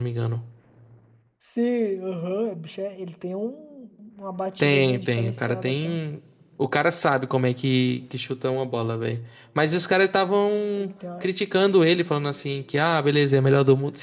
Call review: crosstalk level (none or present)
present